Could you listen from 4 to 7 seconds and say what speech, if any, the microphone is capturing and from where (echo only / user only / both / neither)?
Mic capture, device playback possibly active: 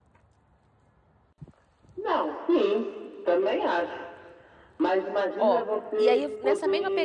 both